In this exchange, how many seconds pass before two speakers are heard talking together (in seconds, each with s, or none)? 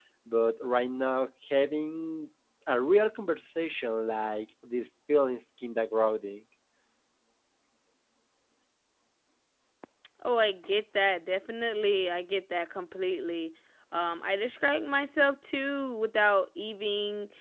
none